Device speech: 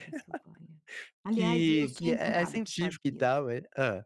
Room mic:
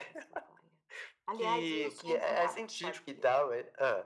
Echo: present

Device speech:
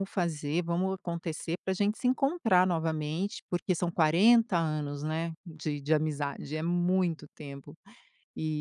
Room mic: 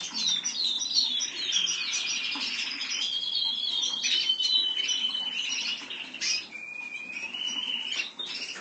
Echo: none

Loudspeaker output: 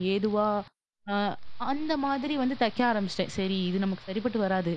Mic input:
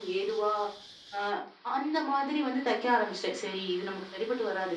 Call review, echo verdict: present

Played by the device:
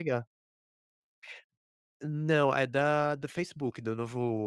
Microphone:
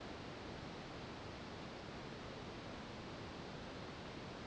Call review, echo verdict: none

